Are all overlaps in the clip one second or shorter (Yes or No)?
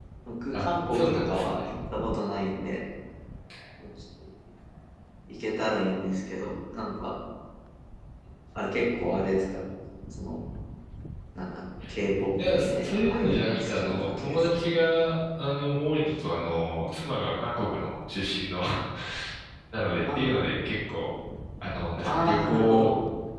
No